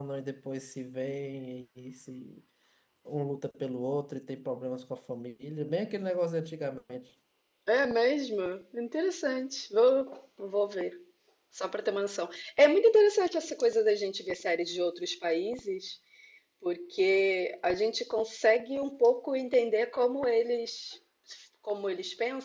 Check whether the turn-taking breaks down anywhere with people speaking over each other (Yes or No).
No